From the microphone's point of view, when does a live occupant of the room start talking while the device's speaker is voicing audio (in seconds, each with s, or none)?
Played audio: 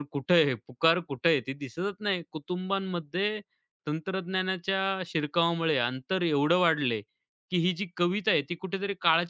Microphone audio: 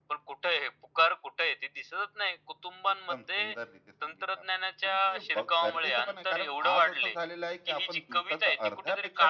2.9 s